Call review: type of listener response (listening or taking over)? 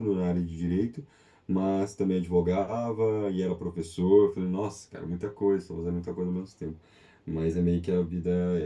listening